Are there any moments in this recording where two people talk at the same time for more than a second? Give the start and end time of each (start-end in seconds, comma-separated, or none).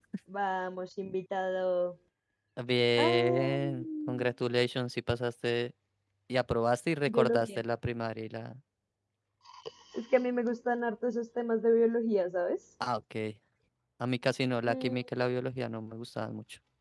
3.0-4.3